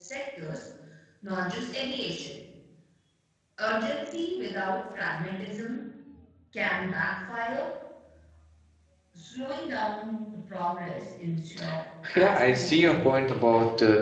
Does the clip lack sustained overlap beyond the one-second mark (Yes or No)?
No